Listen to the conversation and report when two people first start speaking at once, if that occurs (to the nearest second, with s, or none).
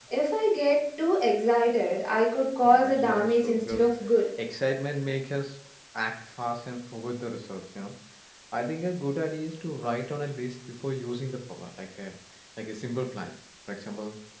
3 s